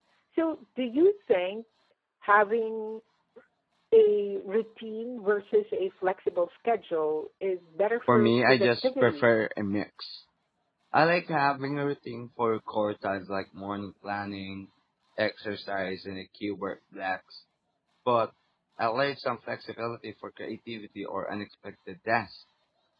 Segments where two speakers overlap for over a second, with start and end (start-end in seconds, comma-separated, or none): 8.1-9.3